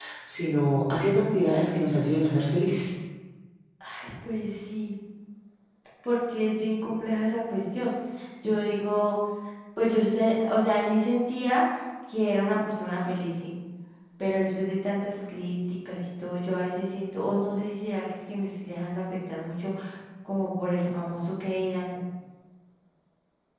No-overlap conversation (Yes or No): Yes